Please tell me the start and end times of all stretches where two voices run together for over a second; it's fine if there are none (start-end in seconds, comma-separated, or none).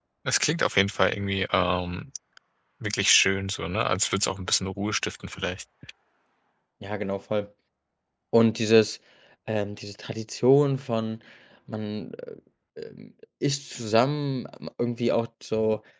none